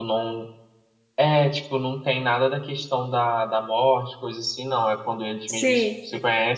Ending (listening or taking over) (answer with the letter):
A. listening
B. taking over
A